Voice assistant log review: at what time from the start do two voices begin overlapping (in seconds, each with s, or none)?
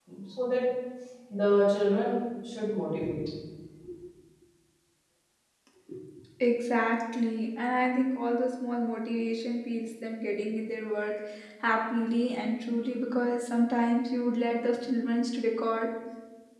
none